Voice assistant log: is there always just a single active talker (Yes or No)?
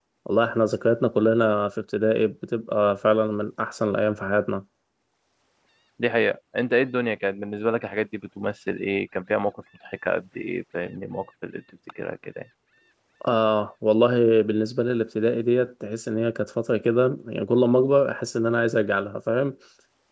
Yes